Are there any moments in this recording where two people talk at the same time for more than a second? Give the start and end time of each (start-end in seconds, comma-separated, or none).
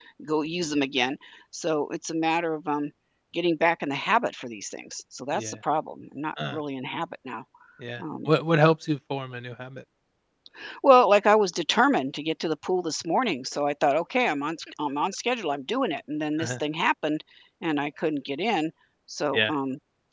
none